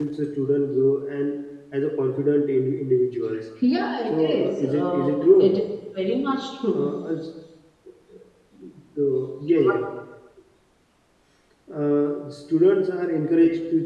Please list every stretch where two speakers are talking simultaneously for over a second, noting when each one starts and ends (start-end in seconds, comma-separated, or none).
4.1-5.5